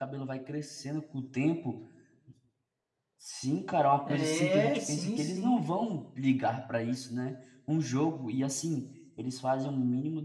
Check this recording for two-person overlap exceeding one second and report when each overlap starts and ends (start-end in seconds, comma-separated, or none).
4.1-5.7